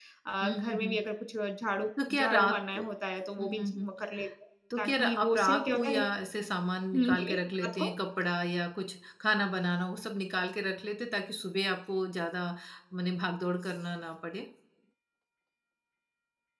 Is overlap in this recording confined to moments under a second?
No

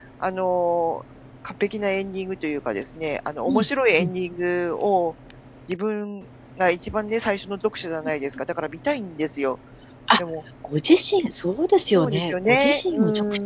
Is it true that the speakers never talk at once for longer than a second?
No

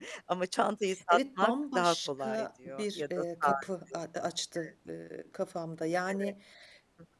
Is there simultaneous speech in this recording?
Yes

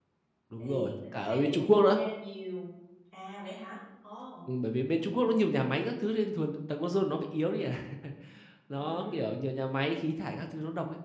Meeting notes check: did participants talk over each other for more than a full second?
Yes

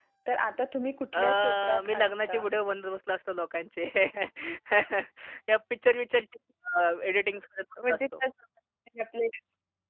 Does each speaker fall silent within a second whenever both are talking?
No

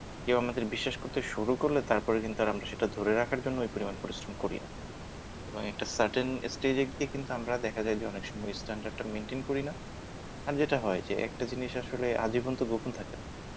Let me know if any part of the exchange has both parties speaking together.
No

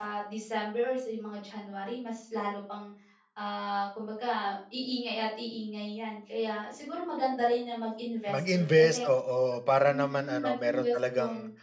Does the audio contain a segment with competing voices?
Yes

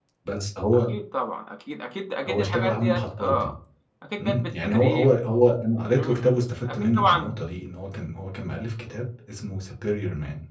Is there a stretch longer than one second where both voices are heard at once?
Yes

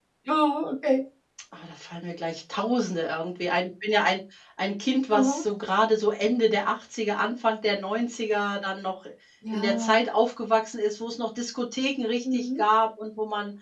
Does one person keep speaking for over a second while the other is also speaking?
No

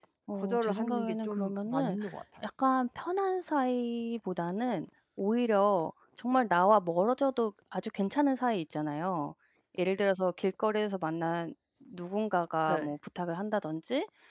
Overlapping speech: Yes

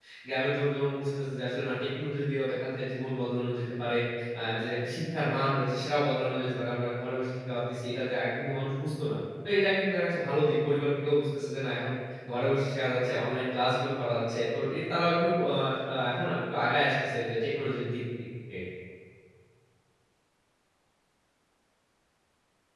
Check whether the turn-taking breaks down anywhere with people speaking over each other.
No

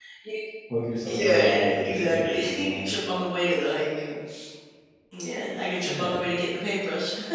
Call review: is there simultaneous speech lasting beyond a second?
Yes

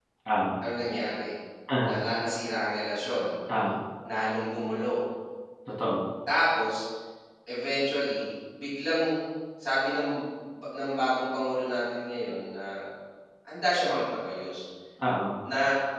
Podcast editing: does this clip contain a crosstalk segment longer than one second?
No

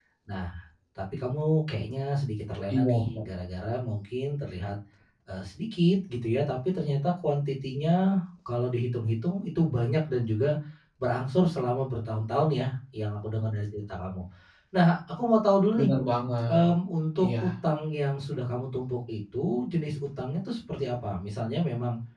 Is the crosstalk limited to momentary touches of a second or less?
Yes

